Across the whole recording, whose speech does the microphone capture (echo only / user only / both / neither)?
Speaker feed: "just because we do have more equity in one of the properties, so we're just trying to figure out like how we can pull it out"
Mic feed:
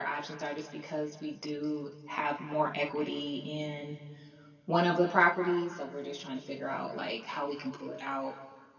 echo only